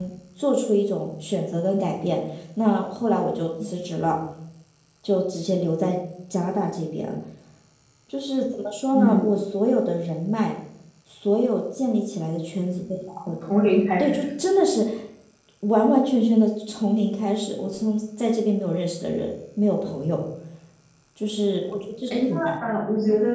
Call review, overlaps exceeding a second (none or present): none